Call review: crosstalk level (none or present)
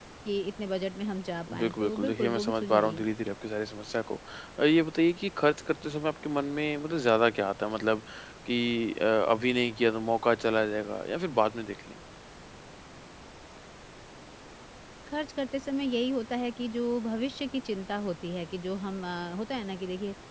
present